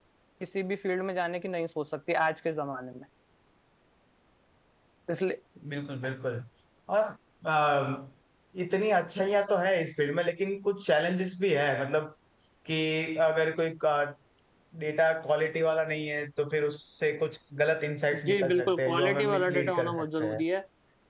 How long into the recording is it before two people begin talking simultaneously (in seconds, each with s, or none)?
18.3 s